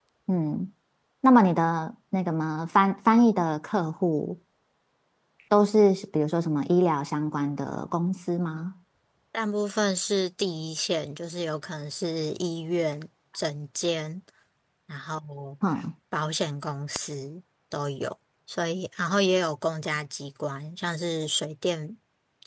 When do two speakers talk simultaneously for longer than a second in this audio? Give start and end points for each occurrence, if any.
none

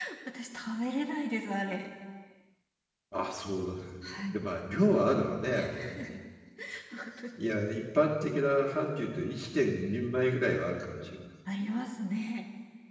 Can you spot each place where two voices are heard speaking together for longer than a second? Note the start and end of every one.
none

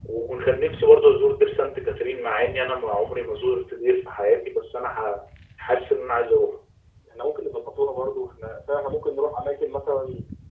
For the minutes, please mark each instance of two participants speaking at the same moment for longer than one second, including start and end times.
none

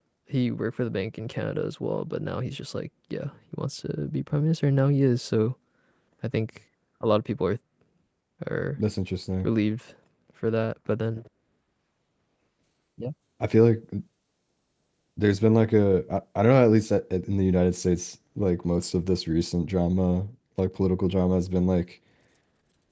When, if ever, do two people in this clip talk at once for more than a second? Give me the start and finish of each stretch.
none

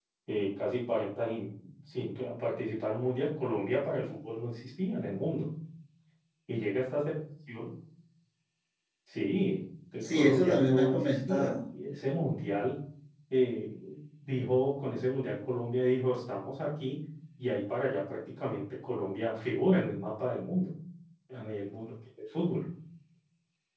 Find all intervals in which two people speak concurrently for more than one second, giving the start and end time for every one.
10.0-11.5

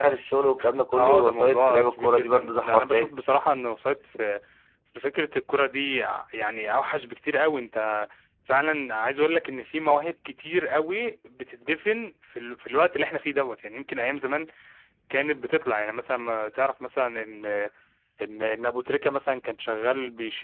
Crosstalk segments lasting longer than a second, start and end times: 0.9-3.1

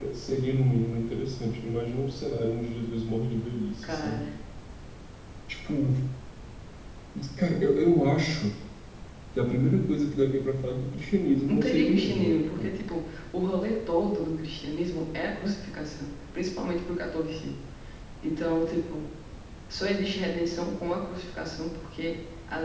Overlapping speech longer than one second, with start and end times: 11.5-12.8

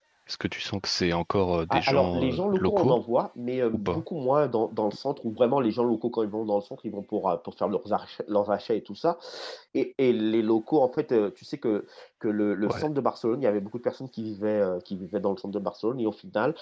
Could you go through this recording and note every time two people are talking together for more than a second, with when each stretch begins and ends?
1.7-3.0

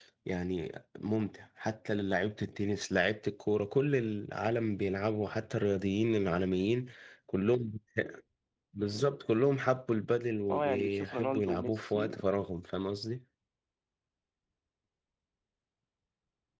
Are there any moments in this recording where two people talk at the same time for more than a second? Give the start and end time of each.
10.5-12.2

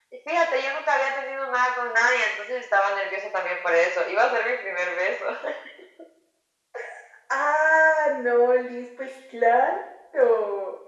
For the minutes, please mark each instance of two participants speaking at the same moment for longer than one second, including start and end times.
none

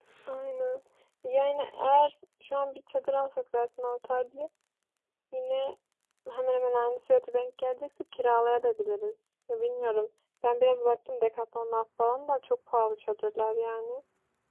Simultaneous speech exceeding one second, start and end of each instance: none

